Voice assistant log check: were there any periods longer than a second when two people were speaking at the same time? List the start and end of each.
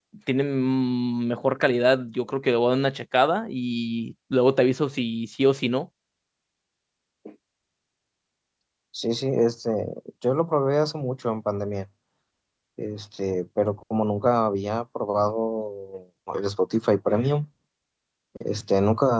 none

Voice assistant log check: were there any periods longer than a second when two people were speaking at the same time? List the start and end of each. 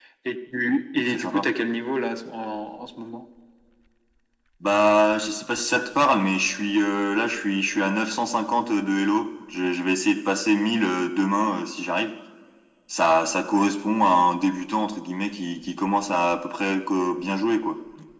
none

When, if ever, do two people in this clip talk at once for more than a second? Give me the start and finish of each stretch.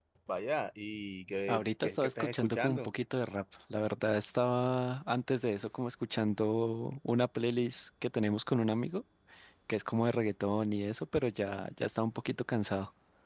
1.5-2.9

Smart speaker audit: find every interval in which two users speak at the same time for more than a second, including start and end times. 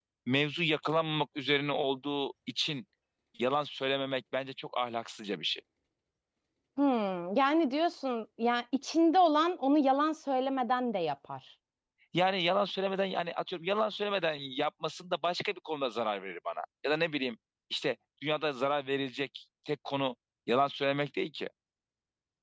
none

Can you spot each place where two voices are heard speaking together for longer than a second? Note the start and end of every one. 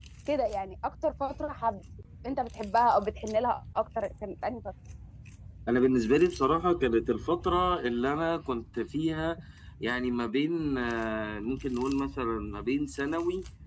none

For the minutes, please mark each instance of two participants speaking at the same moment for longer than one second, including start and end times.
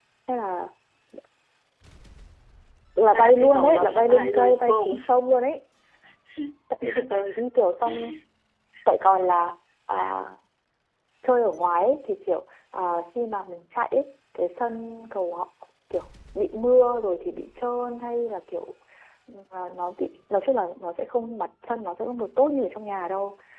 3.1-4.9

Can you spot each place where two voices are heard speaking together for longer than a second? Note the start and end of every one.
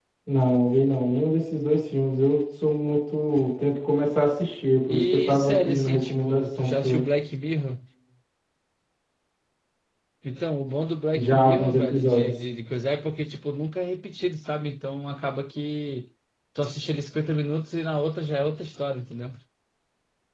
4.9-7.0, 11.1-12.4

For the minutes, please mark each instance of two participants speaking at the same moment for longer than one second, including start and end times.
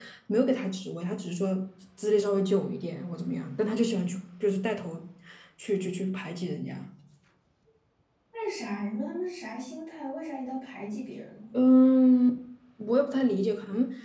none

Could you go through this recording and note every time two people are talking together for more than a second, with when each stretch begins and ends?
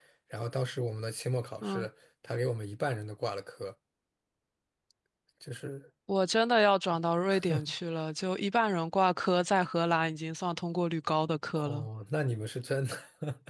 none

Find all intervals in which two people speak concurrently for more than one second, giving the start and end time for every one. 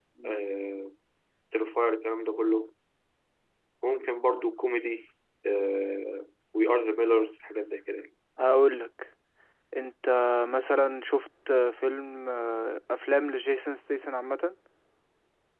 none

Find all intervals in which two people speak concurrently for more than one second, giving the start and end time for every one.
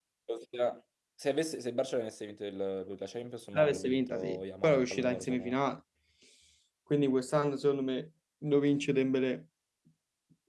3.5-5.5

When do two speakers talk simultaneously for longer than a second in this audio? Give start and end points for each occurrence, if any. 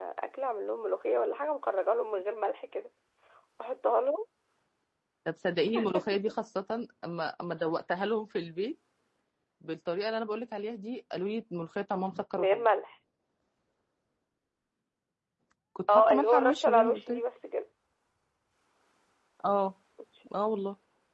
15.9-17.2

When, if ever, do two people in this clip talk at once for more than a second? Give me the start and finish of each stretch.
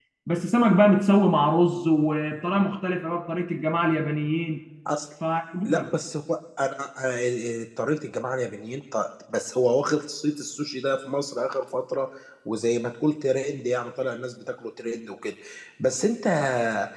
none

